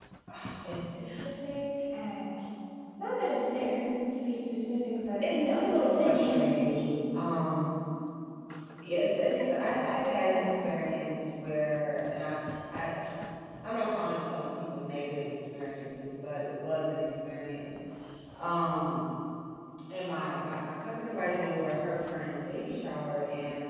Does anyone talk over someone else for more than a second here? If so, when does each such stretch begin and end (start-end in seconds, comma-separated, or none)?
5.2-6.8